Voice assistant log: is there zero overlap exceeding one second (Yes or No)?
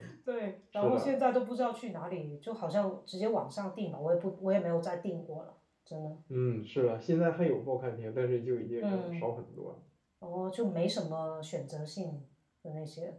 Yes